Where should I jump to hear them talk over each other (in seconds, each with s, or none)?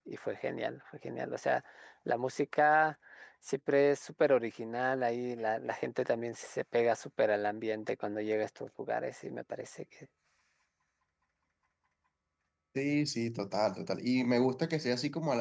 none